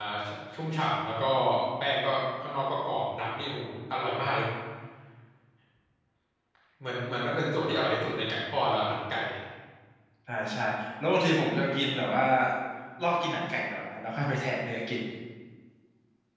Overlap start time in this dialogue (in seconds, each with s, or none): none